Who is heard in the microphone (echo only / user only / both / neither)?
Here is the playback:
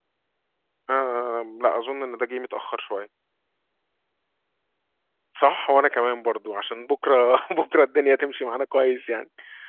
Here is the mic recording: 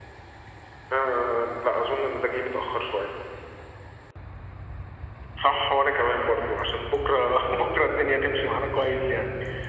echo only